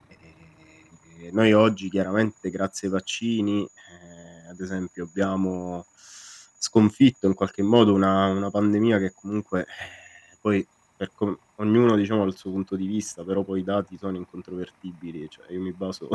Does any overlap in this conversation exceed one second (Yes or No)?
No